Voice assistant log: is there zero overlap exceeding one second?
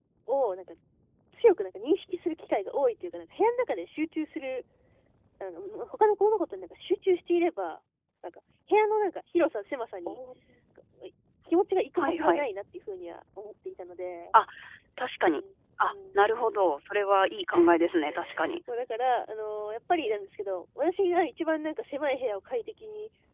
Yes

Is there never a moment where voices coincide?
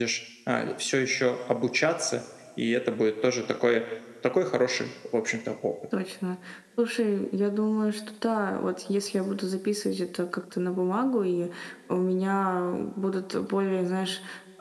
Yes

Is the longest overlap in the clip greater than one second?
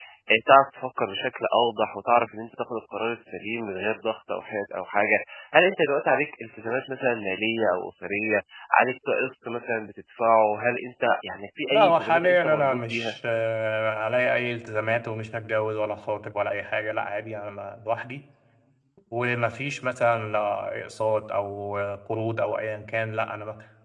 Yes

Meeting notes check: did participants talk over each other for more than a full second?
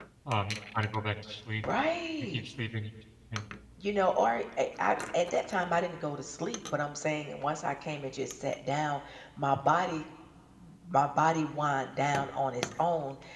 No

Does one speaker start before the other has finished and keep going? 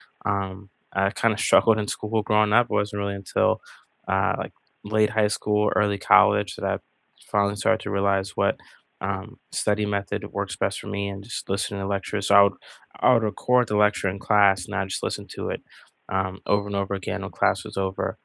No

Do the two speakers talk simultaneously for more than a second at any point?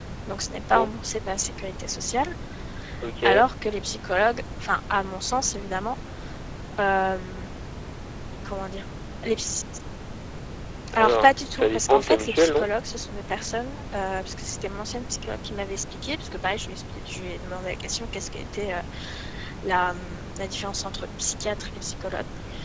Yes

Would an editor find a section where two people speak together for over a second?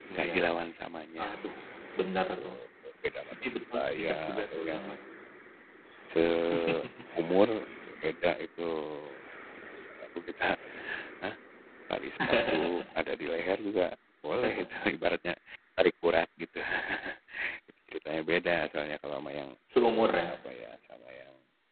Yes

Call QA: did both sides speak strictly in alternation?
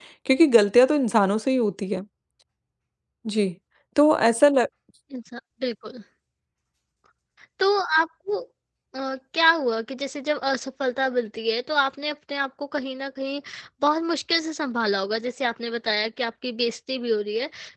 Yes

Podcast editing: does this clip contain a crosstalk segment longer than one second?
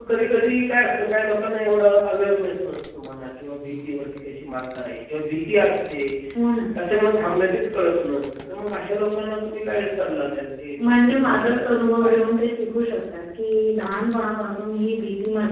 Yes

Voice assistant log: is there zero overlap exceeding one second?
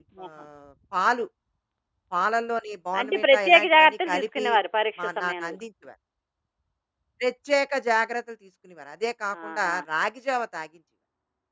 No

